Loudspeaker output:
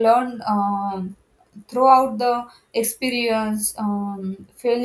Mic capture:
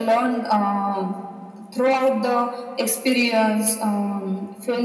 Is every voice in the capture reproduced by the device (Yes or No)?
Yes